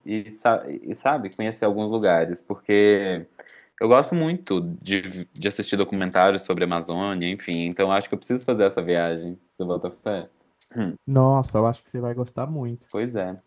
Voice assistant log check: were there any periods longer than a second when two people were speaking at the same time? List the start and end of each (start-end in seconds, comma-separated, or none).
none